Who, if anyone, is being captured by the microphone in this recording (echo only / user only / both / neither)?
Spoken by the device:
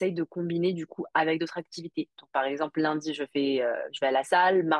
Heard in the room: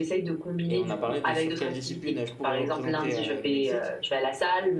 both